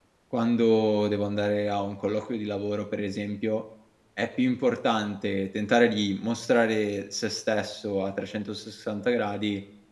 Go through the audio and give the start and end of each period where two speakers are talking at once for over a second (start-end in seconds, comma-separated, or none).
none